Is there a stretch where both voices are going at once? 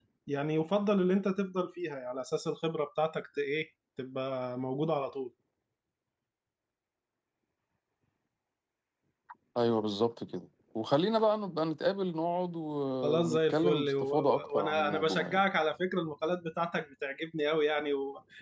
Yes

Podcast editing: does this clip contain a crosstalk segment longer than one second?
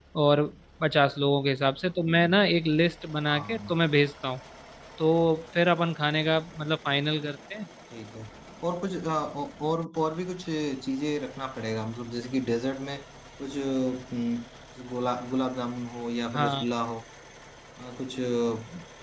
No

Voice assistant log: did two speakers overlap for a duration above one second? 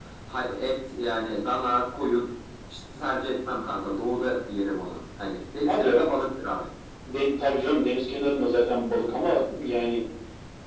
No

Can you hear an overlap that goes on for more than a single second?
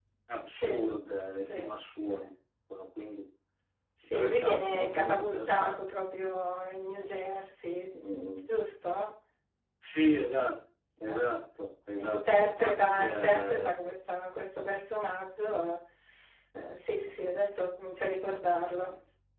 Yes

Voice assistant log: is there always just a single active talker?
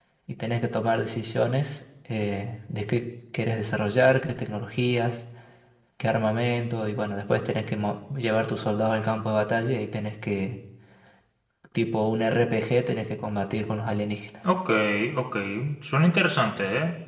Yes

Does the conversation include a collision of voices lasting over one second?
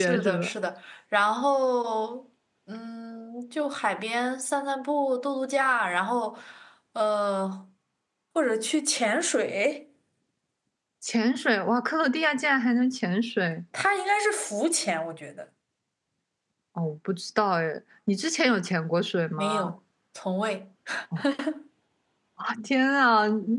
No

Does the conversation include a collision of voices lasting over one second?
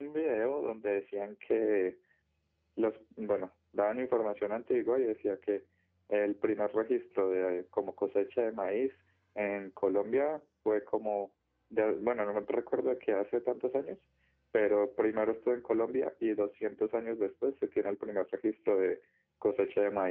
No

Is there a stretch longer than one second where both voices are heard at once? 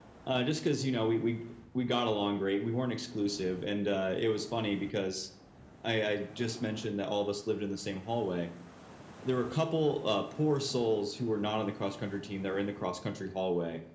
No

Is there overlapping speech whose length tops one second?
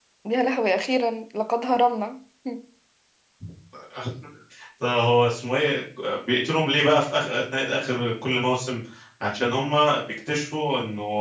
No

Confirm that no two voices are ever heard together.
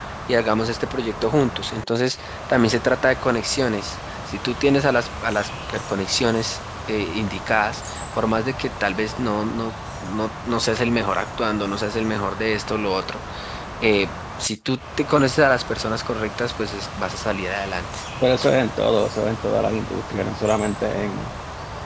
Yes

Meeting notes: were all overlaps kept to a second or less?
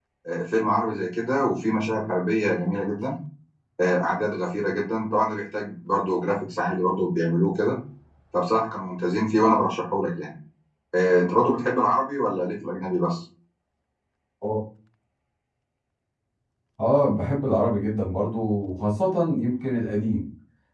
Yes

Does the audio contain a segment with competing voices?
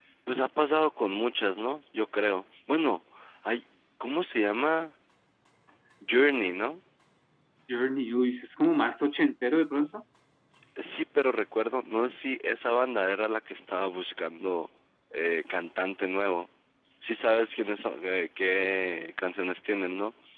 No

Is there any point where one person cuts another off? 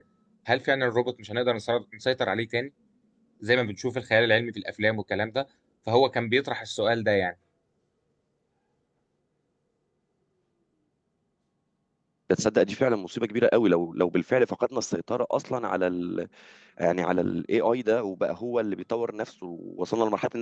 No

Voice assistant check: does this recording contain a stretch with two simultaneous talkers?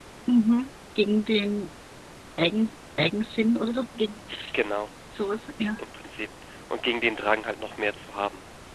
No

